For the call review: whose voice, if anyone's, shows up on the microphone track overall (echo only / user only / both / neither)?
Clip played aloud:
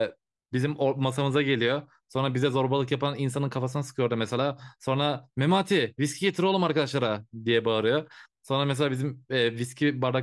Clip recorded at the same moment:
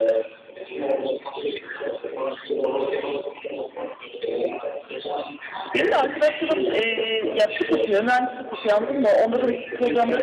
both